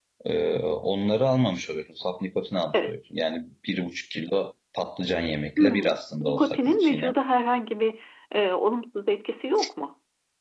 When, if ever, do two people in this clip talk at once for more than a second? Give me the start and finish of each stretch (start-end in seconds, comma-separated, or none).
5.6-7.1